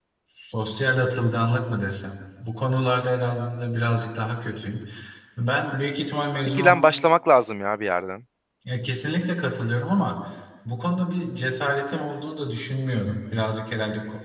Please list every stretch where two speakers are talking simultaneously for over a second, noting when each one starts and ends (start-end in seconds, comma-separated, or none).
none